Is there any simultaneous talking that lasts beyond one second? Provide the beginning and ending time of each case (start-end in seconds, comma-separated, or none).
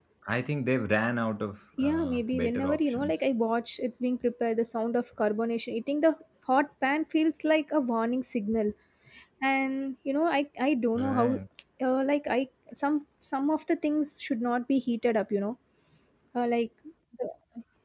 1.8-3.2